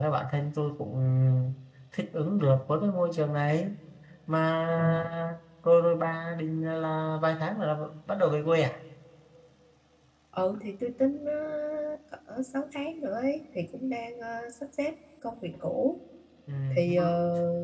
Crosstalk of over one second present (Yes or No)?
No